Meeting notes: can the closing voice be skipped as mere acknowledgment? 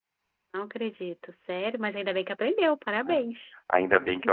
No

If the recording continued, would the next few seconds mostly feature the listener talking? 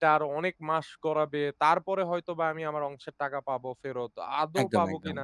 No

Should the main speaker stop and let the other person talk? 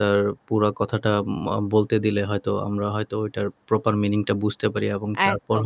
Yes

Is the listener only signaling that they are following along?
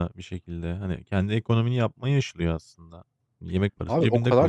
No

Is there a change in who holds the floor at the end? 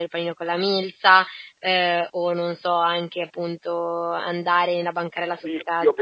Yes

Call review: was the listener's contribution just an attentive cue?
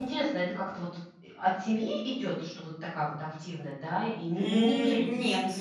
No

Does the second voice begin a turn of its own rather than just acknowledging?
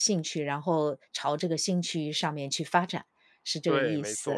Yes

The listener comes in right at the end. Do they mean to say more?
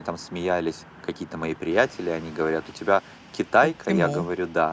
No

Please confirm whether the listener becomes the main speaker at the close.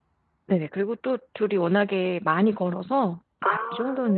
No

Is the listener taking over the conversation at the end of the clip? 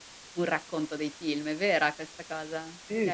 Yes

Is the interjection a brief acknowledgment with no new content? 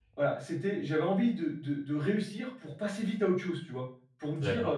Yes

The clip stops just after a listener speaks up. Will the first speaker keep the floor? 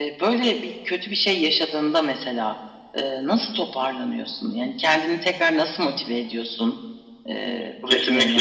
No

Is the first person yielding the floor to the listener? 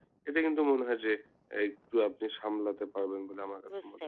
Yes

